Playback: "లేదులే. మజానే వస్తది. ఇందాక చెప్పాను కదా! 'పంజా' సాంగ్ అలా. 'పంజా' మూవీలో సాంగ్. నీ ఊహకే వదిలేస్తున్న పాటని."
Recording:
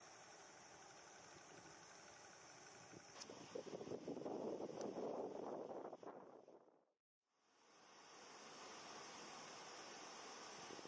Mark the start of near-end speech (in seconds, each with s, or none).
none